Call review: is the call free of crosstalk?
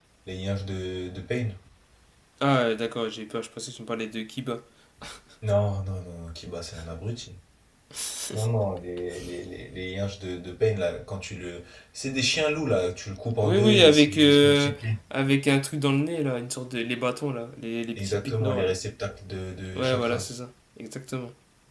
No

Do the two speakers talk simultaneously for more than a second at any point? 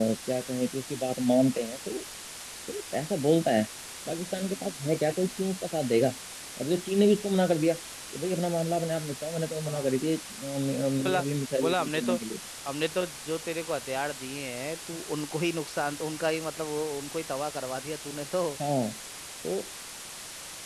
No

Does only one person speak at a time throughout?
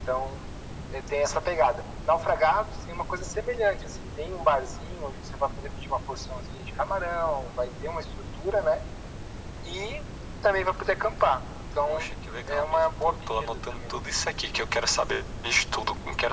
No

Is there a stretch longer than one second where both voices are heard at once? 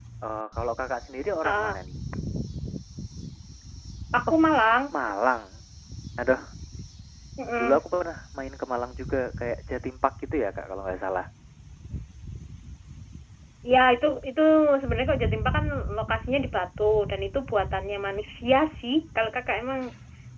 No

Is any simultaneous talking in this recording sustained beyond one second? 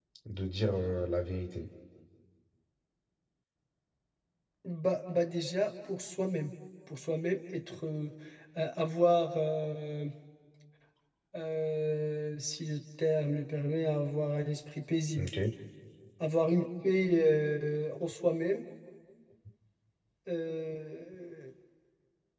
No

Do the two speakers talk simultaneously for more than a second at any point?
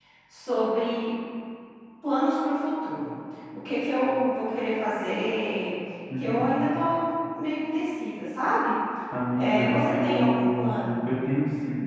Yes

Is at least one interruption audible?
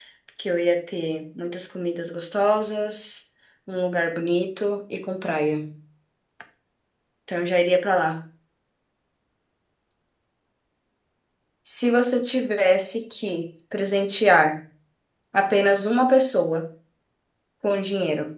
No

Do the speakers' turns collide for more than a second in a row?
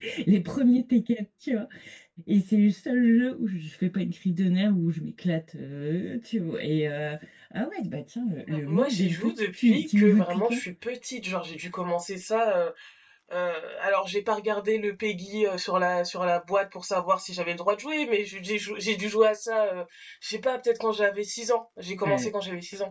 Yes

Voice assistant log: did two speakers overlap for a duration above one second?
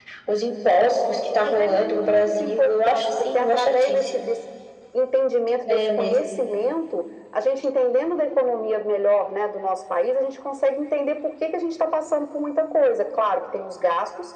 Yes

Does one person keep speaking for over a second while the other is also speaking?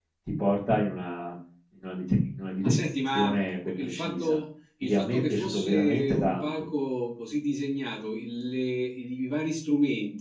Yes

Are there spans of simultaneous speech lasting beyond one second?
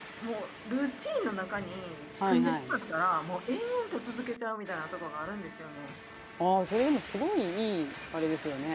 No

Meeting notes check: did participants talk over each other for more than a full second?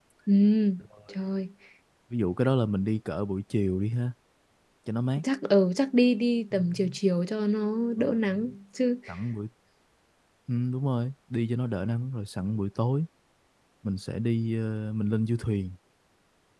No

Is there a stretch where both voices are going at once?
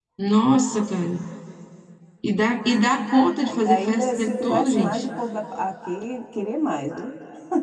Yes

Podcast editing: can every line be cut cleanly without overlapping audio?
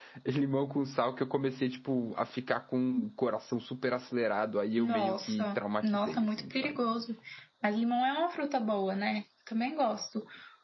No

